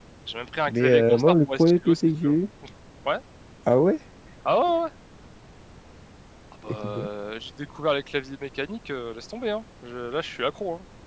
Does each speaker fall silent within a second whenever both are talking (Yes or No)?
No